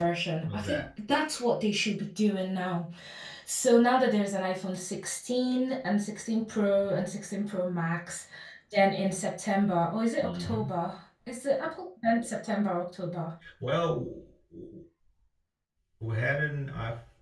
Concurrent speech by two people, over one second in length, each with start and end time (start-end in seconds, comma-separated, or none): none